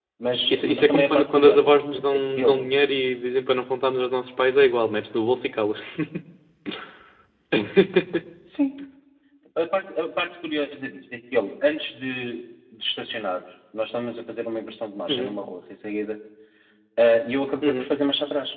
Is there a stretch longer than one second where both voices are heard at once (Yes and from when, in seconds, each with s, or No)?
Yes, from 0.5 s